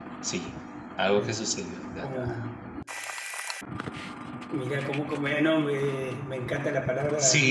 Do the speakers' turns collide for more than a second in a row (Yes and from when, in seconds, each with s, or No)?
No